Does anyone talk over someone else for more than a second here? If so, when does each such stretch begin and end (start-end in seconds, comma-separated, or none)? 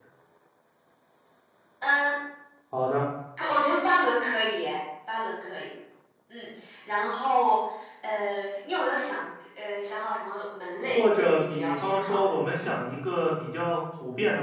10.8-12.3